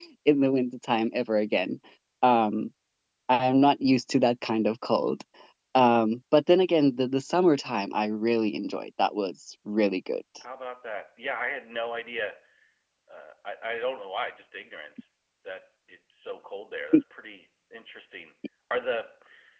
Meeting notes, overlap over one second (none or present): none